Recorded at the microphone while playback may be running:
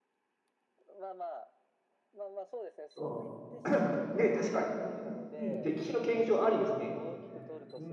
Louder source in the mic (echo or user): user